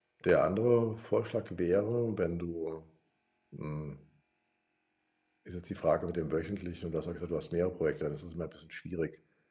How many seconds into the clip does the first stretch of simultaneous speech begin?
none

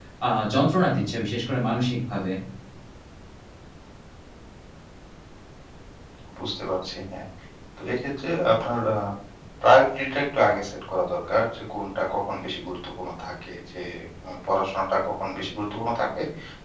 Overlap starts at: none

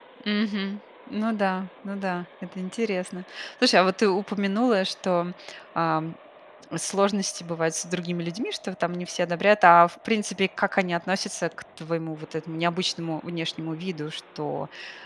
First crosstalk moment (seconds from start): none

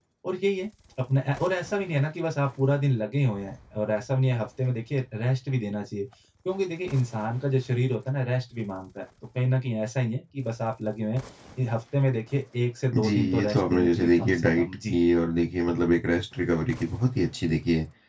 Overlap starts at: 12.9 s

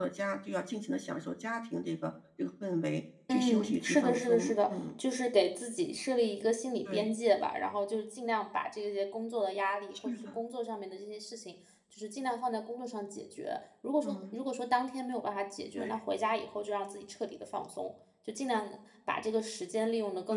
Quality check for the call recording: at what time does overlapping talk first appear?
3.3 s

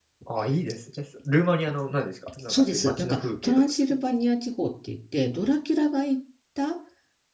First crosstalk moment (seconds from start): 2.3 s

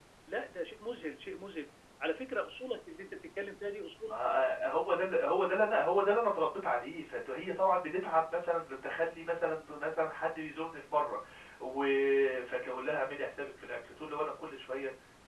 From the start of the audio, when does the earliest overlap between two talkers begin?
none

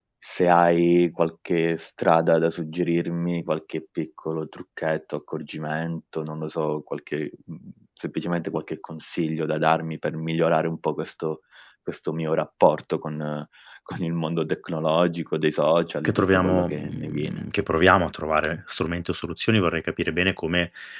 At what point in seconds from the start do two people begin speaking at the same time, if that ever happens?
16.0 s

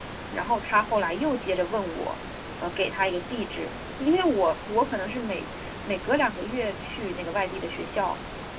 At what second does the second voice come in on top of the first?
none

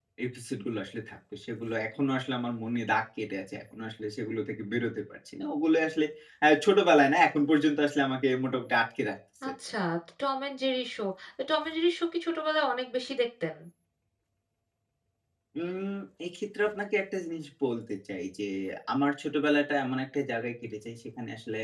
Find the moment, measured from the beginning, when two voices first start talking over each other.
none

